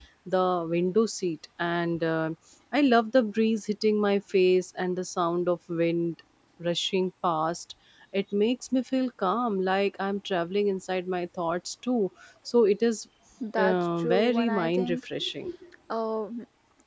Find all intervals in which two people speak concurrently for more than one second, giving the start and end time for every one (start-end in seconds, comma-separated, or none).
13.6-15.0